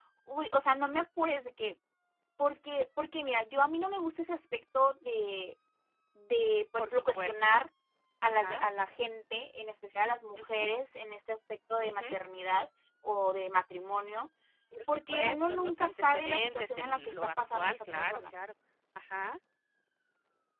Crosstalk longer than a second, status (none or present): present